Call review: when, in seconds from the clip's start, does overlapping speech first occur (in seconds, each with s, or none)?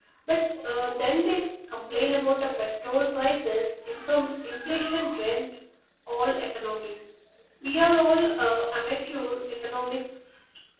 none